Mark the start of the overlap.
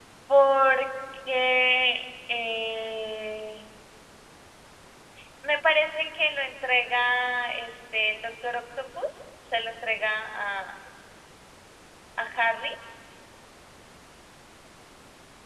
none

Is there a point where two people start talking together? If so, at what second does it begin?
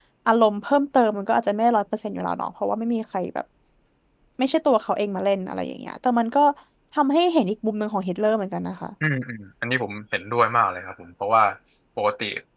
none

